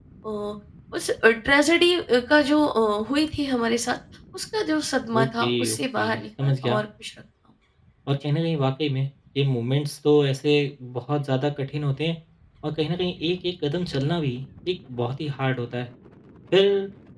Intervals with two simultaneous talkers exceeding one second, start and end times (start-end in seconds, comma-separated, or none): 5.2-6.8